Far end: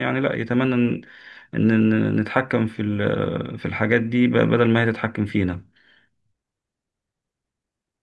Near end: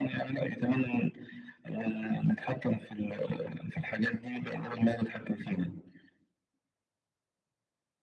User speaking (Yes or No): No